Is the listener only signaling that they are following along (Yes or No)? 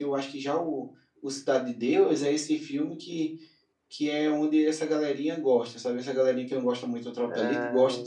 No